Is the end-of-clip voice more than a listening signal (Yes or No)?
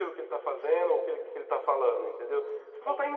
No